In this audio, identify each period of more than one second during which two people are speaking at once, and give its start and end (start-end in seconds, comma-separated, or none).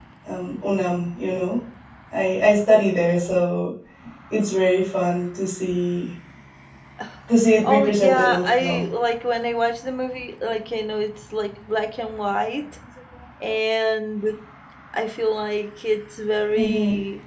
7.6-8.9